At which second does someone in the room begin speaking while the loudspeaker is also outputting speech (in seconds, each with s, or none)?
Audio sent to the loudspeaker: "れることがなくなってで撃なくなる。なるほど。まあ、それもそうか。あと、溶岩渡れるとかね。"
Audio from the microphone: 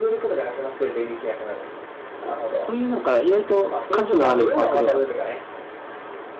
2.2 s